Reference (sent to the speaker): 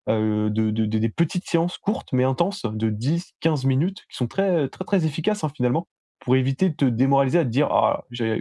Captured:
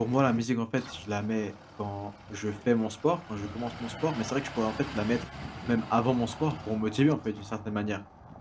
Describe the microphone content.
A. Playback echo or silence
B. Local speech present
B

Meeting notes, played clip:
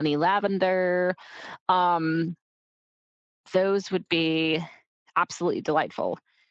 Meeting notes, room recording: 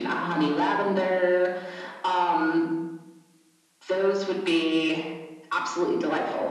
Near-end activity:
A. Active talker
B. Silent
B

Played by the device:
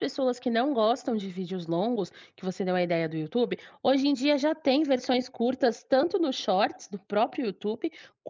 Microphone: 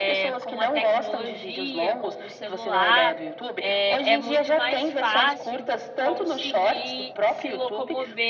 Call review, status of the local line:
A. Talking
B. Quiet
A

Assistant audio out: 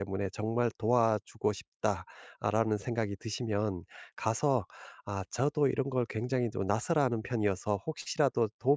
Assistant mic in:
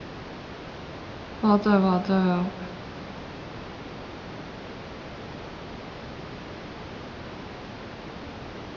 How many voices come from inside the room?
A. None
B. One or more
B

